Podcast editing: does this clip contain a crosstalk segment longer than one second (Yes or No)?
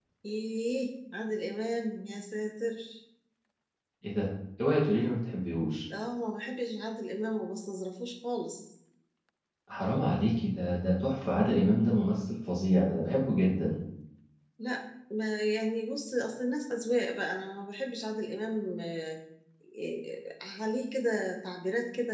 No